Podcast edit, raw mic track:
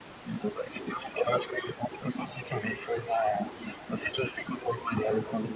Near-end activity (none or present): none